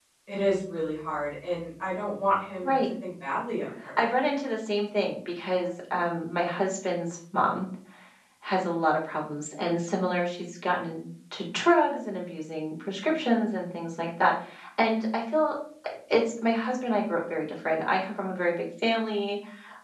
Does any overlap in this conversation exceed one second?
No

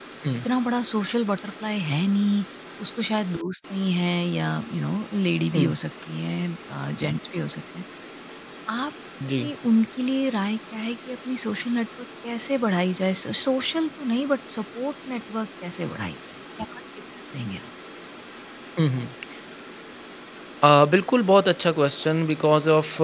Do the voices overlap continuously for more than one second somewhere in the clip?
No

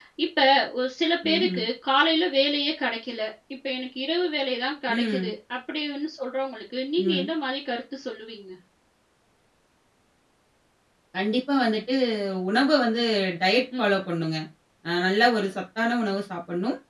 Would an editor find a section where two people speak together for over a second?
No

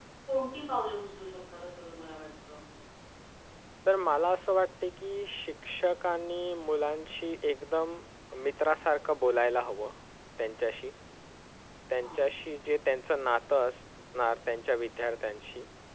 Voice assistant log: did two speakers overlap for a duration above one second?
No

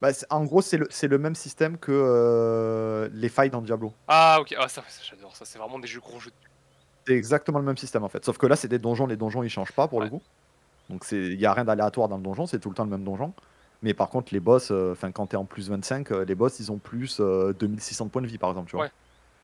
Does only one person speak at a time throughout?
Yes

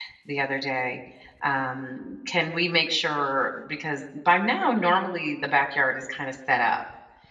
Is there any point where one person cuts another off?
No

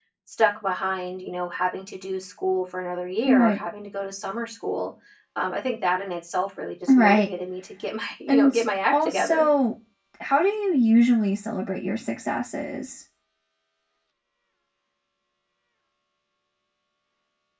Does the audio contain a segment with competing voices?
Yes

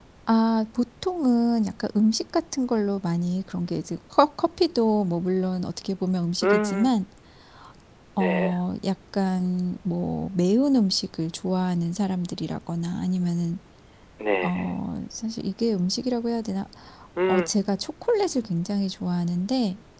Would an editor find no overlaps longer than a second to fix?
Yes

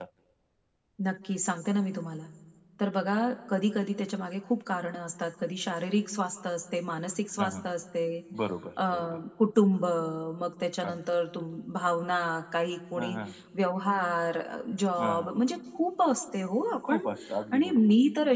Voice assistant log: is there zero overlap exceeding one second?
Yes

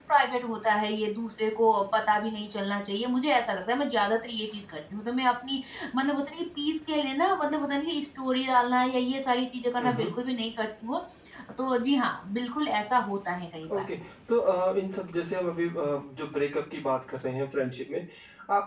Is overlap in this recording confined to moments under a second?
Yes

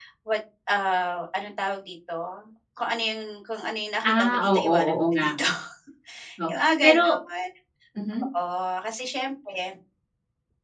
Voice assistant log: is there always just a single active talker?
No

